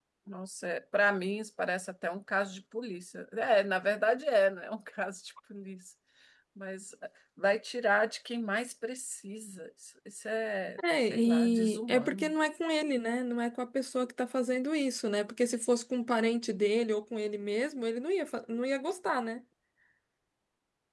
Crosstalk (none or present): present